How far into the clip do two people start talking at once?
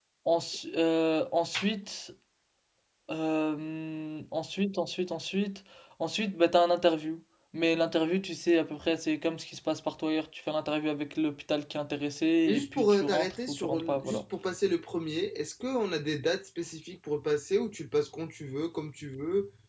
12.5 s

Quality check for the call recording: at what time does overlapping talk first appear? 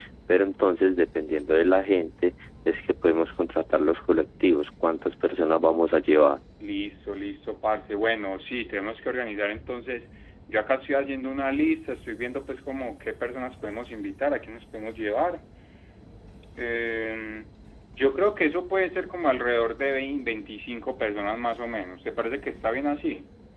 none

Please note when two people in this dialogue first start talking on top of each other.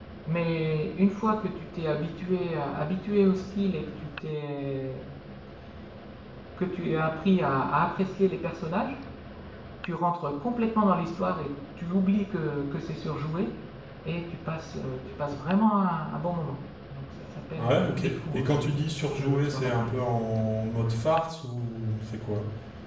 17.6 s

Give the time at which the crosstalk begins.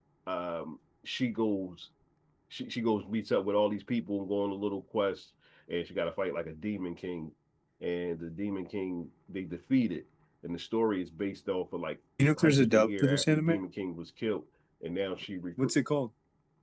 12.4 s

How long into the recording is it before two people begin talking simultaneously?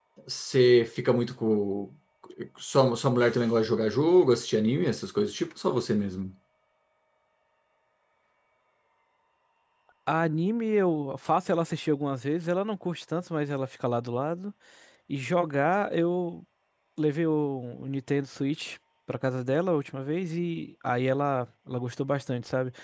none

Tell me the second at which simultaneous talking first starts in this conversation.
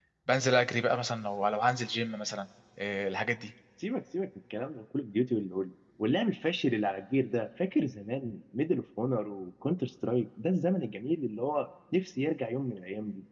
none

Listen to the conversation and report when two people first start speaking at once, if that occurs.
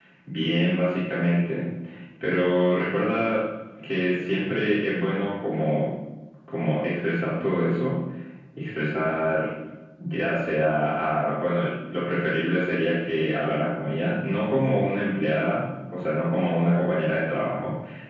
none

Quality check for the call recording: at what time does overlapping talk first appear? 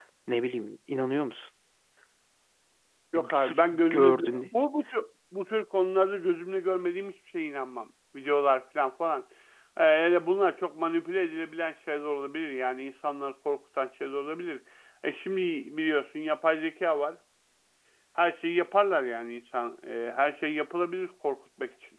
3.1 s

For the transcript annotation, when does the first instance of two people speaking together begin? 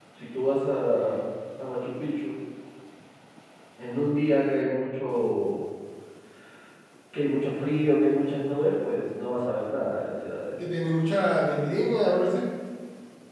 none

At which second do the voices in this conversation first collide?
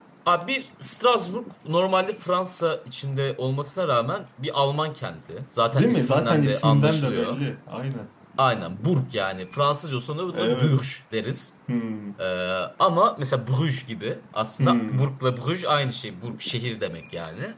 5.7 s

